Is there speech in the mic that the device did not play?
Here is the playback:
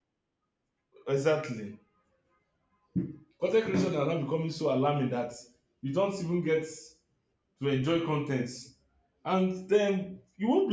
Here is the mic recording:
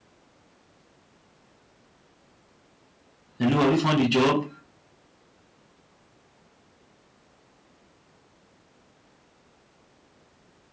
Yes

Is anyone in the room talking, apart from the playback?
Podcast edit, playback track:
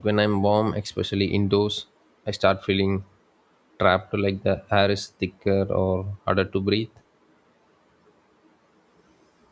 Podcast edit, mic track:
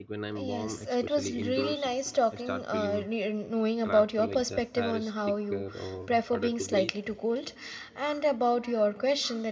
Yes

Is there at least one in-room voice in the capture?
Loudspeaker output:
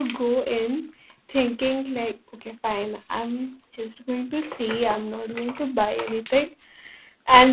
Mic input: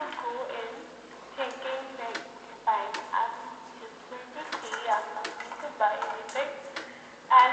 No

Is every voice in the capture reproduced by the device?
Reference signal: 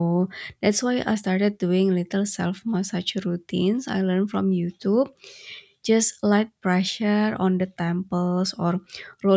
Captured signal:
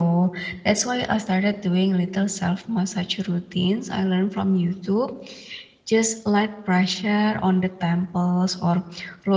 Yes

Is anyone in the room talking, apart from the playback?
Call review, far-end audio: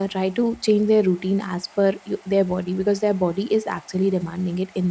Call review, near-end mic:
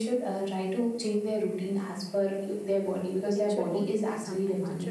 Yes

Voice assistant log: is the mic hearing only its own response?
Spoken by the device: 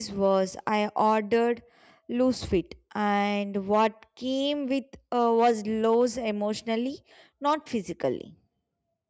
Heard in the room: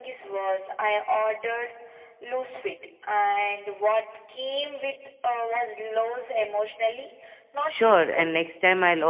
No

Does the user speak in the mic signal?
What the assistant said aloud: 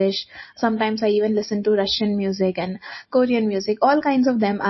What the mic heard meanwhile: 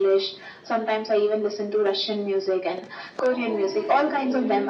Yes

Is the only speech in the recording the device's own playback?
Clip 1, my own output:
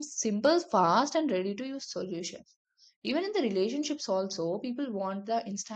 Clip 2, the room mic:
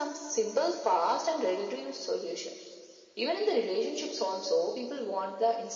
Yes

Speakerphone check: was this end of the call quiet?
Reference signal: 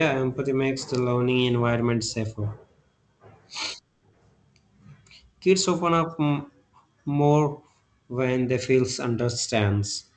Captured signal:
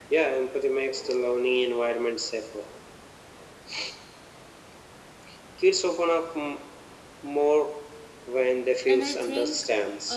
No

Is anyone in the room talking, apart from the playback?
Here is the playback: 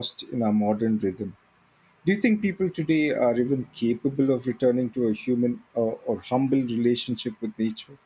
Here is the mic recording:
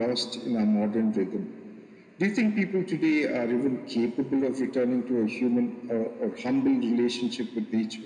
No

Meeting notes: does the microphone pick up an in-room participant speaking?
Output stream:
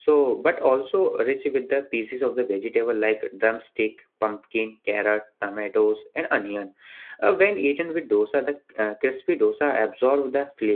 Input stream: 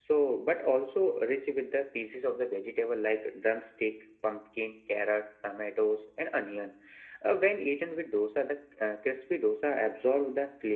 No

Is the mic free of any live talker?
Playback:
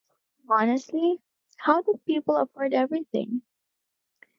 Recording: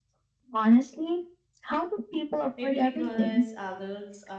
No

